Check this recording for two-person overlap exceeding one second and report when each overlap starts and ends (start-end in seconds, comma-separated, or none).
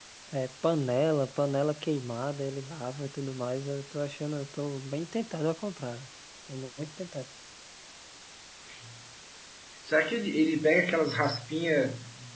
none